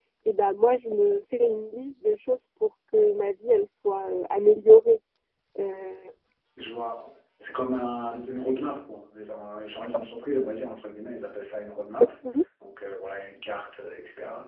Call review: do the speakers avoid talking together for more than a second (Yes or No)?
Yes